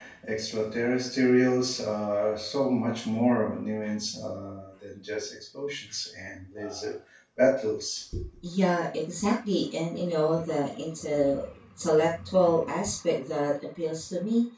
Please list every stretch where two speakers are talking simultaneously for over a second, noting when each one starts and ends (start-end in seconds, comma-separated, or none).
none